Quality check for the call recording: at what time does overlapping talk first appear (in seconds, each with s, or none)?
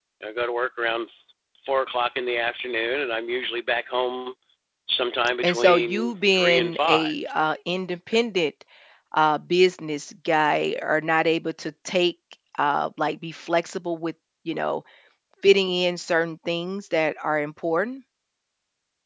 5.4 s